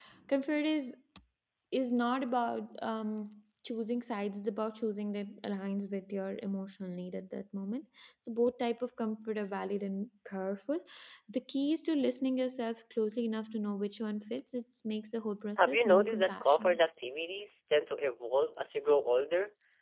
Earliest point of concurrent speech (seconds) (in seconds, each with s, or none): 15.6 s